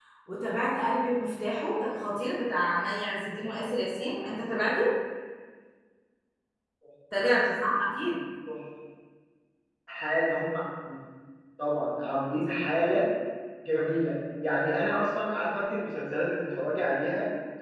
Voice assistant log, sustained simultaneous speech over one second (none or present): none